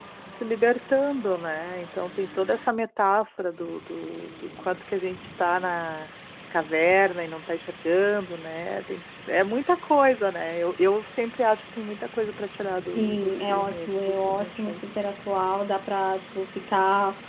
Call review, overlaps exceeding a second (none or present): present